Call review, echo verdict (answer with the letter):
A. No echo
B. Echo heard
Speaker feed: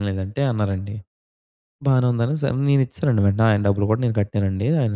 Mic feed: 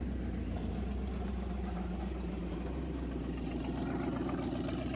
A